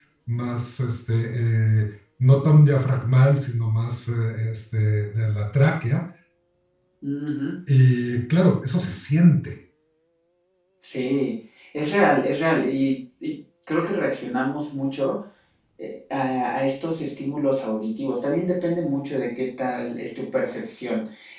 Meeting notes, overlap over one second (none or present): none